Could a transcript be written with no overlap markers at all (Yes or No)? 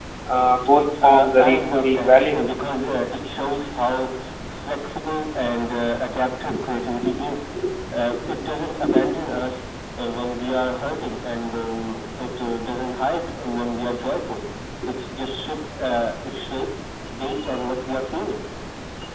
No